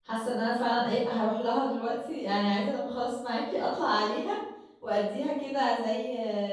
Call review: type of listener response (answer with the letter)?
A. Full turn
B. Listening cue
B